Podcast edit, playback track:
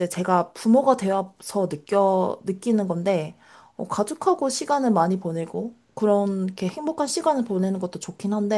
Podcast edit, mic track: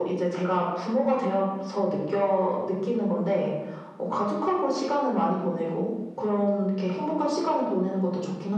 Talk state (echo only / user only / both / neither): echo only